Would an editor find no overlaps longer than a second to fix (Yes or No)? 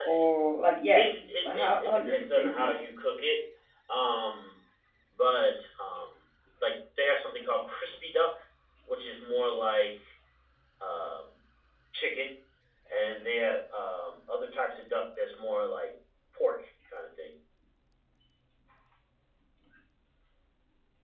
No